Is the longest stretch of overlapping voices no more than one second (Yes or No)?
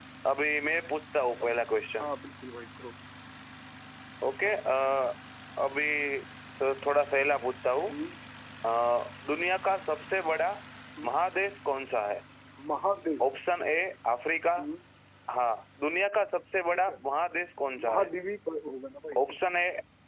Yes